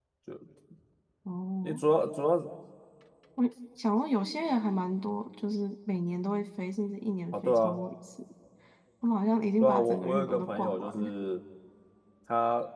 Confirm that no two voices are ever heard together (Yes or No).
No